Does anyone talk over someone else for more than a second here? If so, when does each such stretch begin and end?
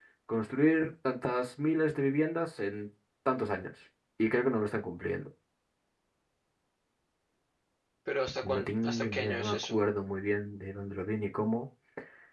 8.4-9.8

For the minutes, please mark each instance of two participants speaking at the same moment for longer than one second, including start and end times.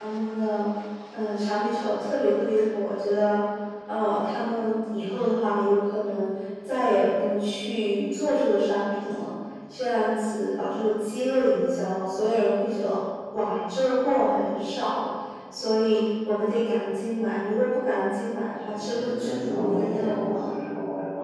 18.7-20.6

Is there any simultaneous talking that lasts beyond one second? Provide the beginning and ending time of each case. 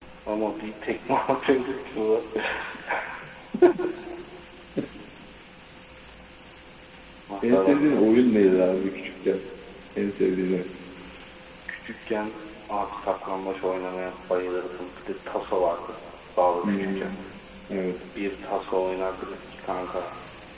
7.4-8.6

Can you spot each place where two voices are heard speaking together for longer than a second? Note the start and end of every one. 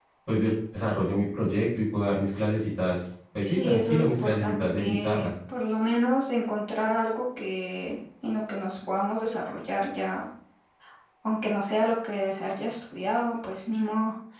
3.4-5.3

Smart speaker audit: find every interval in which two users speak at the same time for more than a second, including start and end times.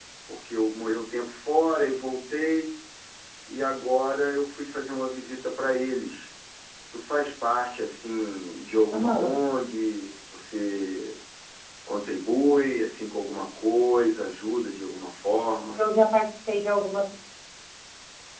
none

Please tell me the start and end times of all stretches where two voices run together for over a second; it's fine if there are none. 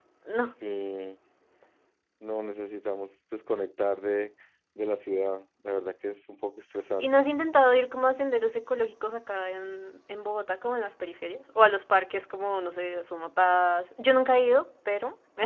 none

